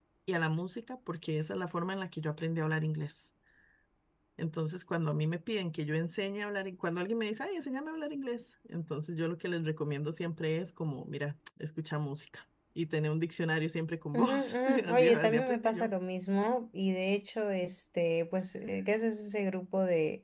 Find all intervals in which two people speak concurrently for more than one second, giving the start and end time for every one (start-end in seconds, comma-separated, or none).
14.1-15.9